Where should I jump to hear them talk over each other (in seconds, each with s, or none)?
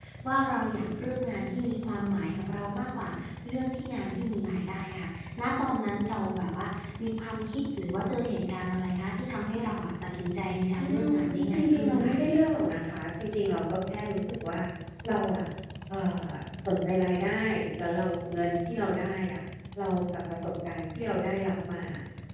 10.8 s